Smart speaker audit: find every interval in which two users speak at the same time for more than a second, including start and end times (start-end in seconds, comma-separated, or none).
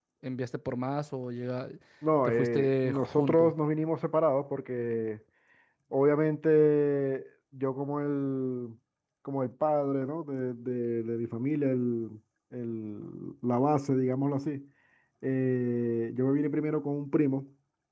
2.2-3.5